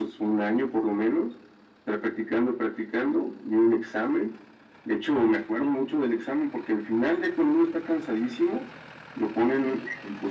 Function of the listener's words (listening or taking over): listening